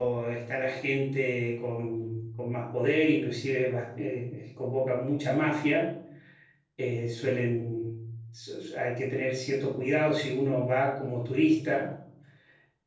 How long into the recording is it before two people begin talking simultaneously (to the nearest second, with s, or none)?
none